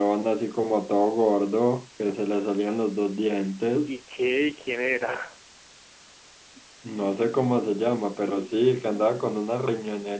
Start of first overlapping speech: none

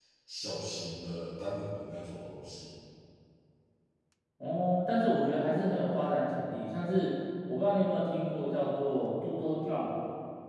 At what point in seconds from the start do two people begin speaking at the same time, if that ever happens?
none

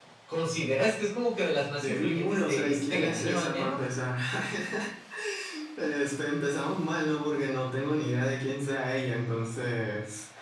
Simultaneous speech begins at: 2 s

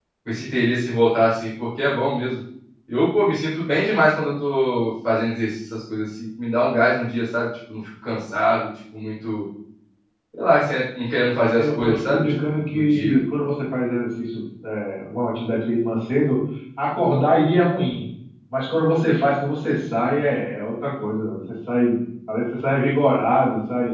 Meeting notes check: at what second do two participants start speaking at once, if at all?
11 s

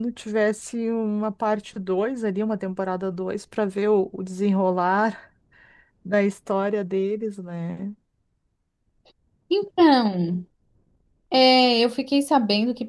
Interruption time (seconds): none

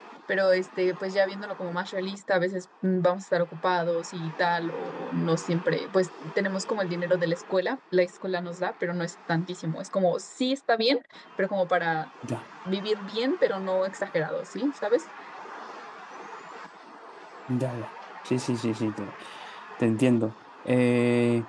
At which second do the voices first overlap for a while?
none

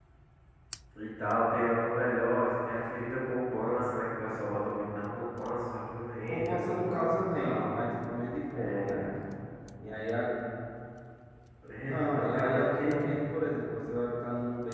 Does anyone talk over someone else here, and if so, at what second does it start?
6 s

